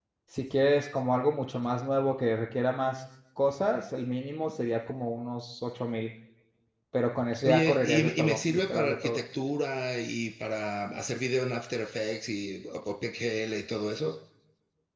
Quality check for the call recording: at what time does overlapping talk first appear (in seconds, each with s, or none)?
7.4 s